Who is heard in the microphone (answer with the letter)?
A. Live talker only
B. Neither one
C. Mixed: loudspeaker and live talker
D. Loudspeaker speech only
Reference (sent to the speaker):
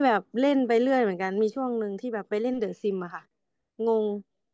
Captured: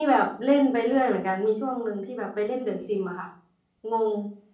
D